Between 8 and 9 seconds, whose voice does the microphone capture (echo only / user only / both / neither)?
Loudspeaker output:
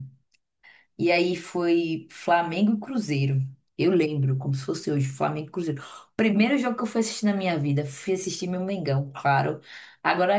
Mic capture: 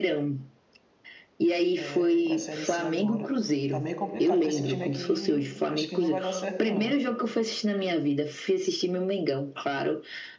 echo only